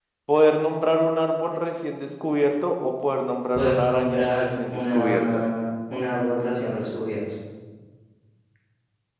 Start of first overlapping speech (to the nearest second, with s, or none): 4 s